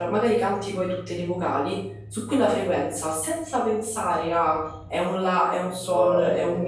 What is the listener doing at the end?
listening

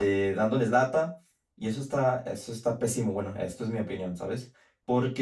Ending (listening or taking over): listening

